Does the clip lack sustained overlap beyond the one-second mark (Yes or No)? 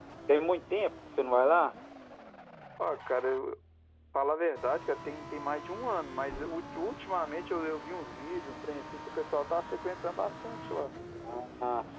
Yes